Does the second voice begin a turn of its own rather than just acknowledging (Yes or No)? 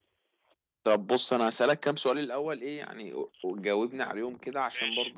No